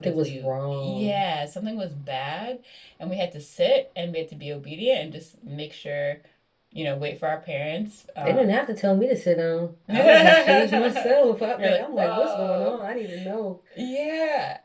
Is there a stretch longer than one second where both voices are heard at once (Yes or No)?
Yes